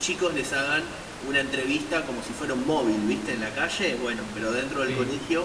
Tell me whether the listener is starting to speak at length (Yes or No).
No